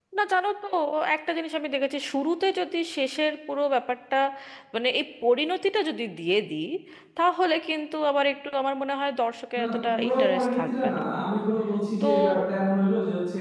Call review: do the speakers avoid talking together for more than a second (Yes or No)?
No